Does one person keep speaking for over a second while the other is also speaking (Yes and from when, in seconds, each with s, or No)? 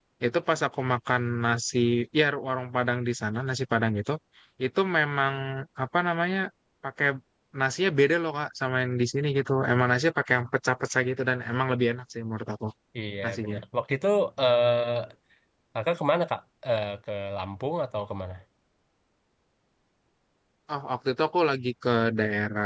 No